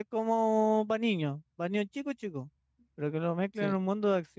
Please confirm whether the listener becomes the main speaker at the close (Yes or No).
No